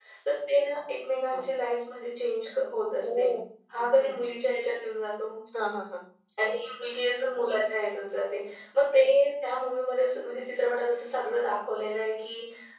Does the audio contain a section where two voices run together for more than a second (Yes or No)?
No